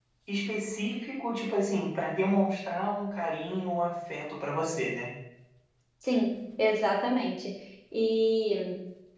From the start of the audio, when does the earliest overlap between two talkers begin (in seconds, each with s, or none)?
none